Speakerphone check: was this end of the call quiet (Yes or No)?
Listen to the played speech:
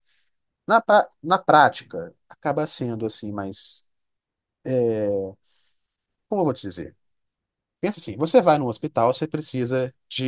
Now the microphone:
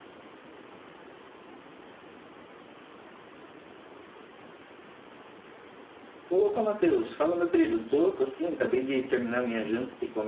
No